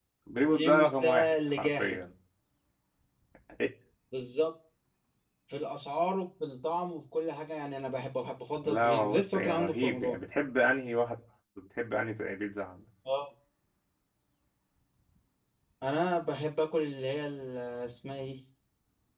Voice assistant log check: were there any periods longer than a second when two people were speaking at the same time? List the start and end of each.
0.5-2.0, 8.6-10.2

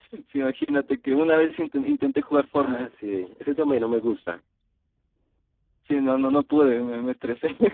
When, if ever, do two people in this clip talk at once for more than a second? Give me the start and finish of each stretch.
none

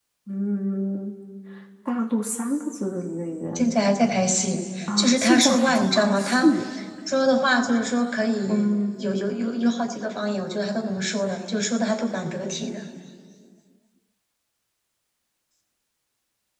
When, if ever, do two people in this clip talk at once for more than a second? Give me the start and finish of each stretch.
5.0-6.5

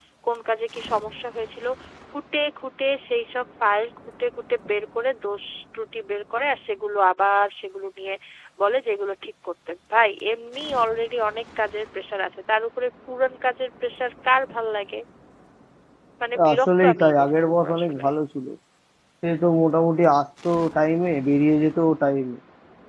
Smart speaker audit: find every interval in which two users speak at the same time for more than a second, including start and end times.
16.5-18.0

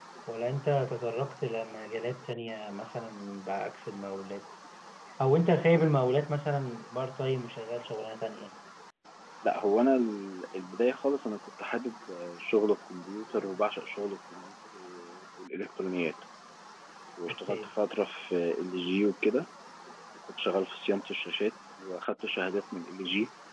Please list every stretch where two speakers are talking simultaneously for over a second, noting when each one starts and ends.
none

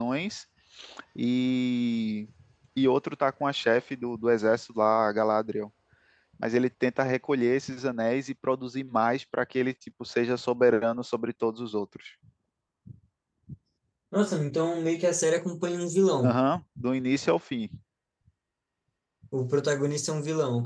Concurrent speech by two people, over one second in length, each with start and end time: none

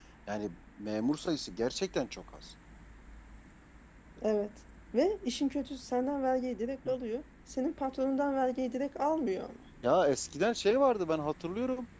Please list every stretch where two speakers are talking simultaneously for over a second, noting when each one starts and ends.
none

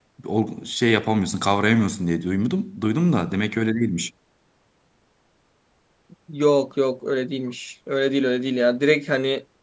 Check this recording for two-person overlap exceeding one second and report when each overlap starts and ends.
none

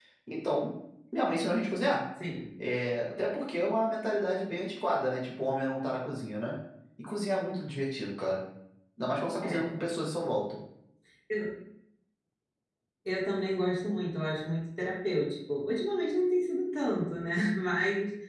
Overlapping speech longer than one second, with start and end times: none

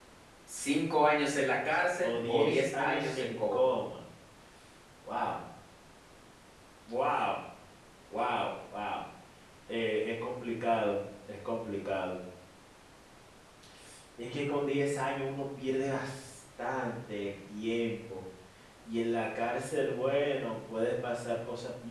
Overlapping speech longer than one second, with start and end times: 2.0-3.7

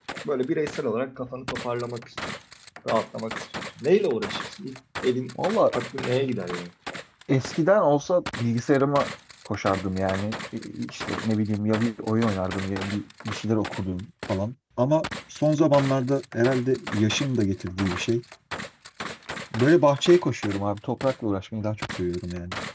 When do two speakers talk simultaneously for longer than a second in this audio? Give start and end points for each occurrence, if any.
none

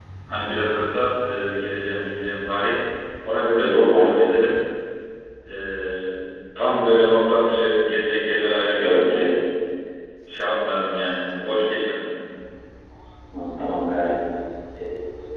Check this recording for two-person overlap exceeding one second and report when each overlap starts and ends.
none

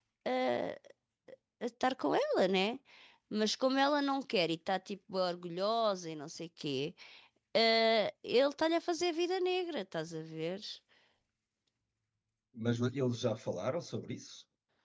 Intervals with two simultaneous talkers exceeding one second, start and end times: none

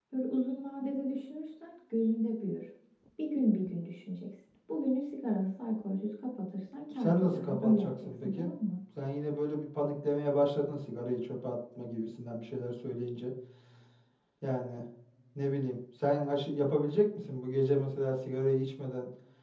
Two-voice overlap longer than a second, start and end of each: 6.9-8.5

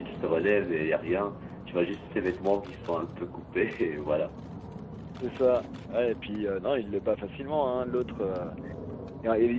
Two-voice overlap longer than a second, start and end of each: none

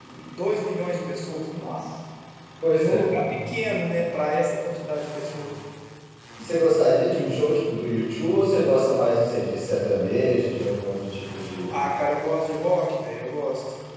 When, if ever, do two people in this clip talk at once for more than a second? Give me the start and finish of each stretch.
none

